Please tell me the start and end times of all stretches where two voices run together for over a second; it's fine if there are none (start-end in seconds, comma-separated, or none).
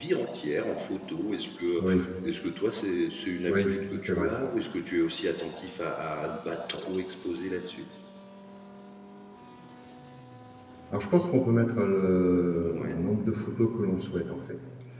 none